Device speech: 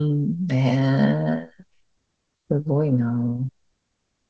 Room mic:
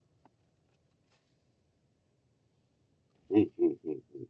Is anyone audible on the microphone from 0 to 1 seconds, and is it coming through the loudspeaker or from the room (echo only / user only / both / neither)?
neither